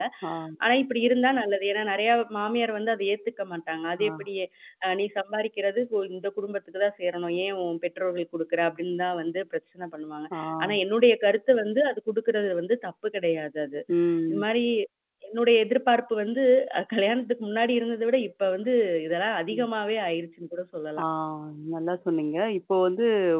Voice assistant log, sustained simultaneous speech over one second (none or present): none